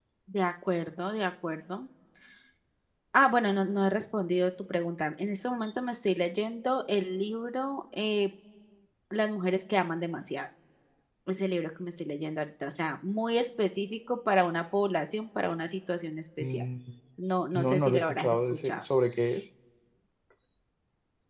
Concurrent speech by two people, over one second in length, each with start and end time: 17.5-18.8

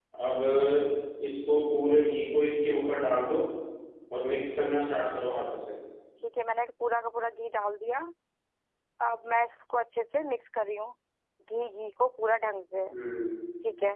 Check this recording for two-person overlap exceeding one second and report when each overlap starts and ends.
none

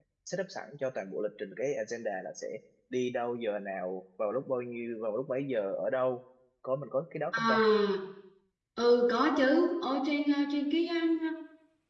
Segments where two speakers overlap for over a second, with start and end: none

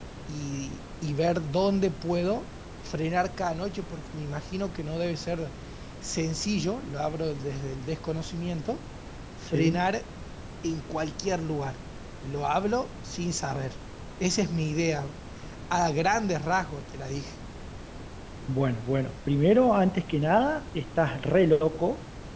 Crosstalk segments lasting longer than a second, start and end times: none

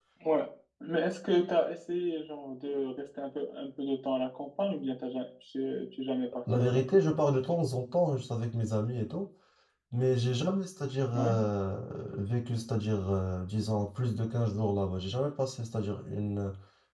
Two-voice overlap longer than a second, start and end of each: none

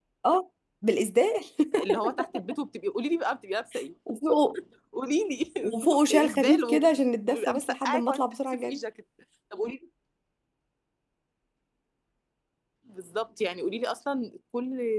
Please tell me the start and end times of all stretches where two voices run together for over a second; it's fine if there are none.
5.6-8.8

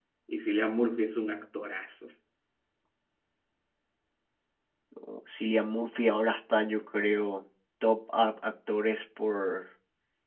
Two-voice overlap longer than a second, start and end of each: none

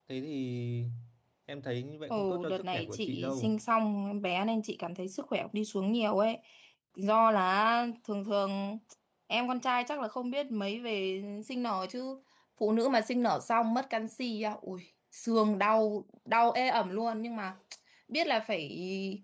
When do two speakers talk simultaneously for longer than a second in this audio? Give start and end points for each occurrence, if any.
2.1-3.5

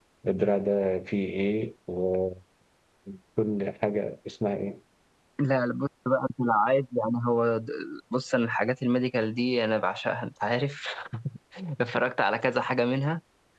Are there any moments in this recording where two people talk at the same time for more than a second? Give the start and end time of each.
none

